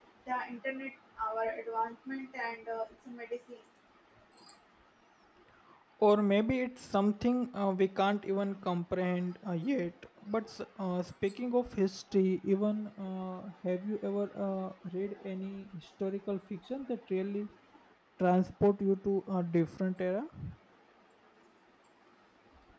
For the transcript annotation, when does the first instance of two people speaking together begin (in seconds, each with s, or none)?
none